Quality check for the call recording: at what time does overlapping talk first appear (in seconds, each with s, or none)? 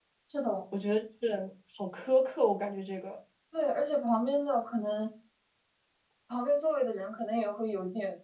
none